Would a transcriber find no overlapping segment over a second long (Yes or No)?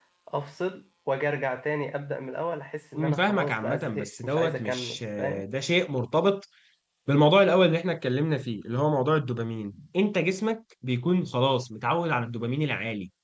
No